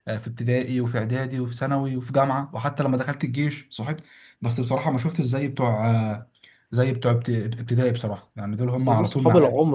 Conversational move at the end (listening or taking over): taking over